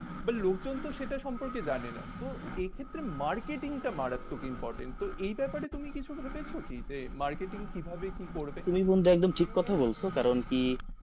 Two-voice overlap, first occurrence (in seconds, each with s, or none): none